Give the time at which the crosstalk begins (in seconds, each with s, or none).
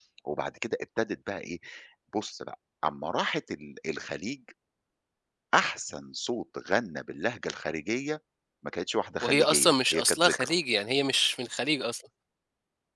9.2 s